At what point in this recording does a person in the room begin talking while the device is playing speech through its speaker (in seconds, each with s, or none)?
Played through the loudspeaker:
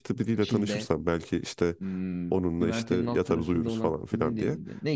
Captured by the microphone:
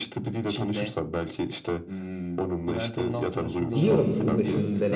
3.8 s